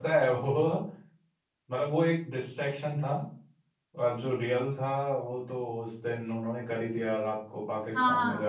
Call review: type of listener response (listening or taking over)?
taking over